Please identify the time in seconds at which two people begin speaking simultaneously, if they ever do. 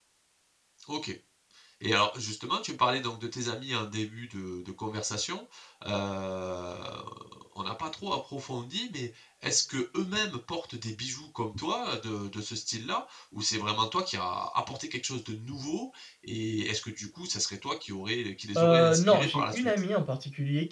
18.6 s

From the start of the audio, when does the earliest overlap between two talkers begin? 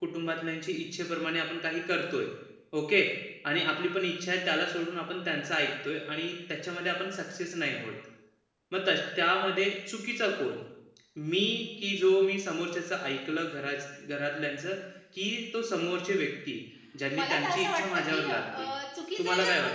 17.1 s

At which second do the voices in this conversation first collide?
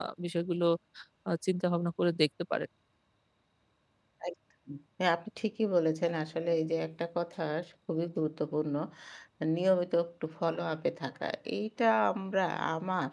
none

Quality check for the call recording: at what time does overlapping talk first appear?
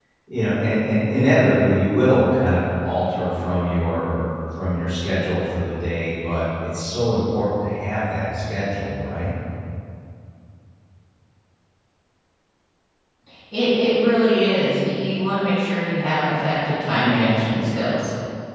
none

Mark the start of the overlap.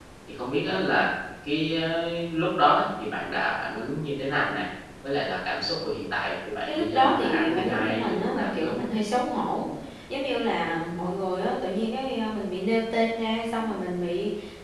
6.7 s

